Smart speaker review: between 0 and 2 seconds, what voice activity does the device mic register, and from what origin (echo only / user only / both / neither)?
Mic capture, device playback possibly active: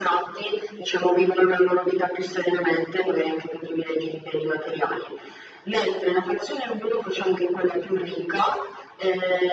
echo only